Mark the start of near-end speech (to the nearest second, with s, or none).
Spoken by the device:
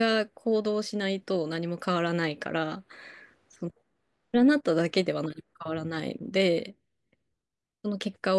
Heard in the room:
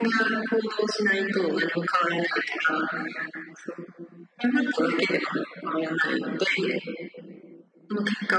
none